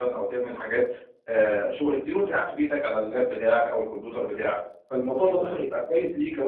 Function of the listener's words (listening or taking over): listening